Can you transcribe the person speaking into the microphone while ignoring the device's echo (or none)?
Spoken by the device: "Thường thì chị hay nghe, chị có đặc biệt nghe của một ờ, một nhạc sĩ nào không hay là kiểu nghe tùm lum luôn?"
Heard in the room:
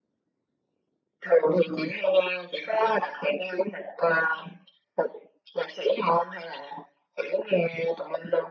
none